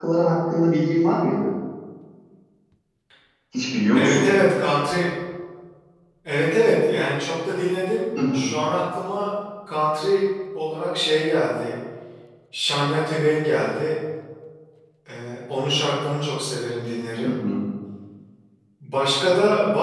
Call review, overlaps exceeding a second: none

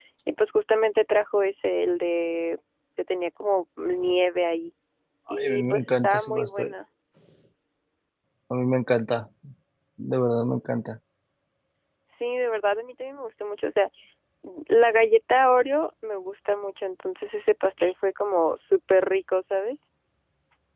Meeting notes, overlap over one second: present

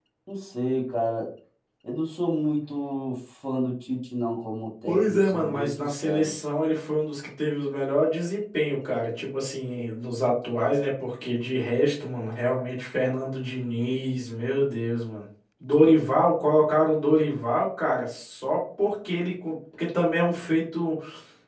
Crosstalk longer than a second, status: present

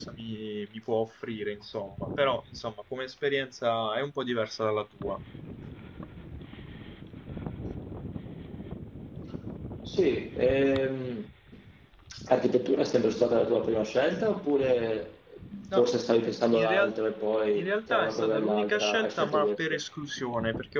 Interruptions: present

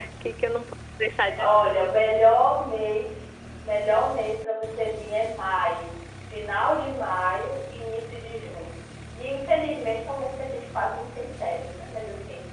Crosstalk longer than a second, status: none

